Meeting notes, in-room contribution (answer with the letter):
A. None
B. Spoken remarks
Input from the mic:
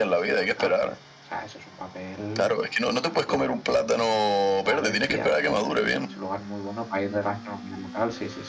B